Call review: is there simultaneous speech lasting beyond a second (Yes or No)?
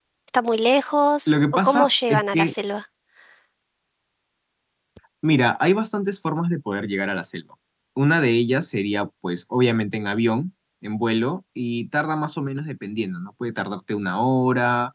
Yes